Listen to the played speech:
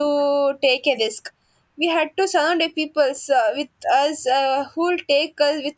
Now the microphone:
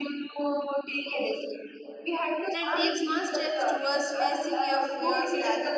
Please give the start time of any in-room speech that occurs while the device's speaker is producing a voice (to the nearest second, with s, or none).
3 s